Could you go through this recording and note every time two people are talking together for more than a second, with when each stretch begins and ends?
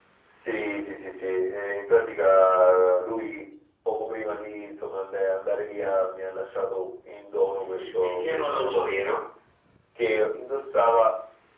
7.6-9.1

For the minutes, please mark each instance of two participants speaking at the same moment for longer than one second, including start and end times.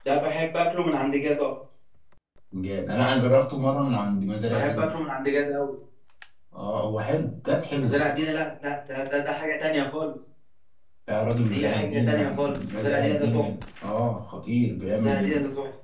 11.5-13.4

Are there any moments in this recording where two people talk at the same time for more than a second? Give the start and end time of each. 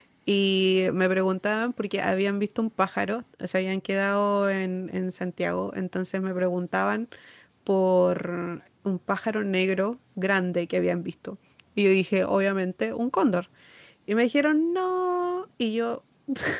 none

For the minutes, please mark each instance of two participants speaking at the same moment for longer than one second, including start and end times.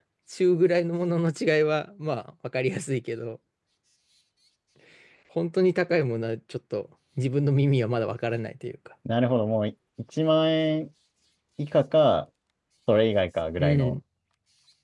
none

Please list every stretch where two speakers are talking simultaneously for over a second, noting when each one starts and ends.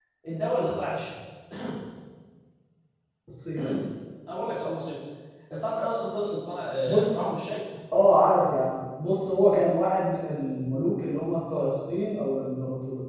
none

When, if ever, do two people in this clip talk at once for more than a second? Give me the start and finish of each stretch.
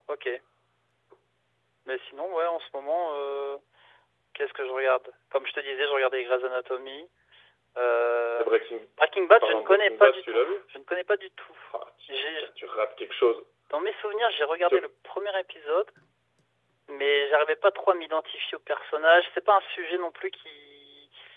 9.3-10.5

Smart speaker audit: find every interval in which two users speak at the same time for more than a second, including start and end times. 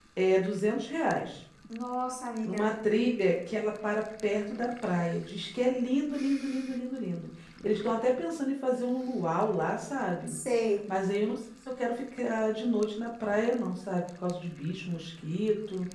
none

